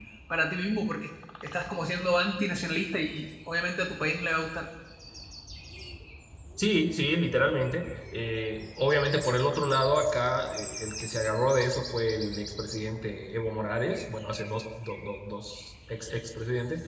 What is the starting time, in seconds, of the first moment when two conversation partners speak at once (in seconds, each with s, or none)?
none